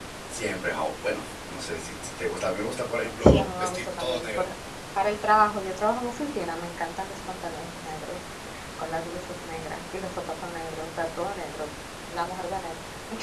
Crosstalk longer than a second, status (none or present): present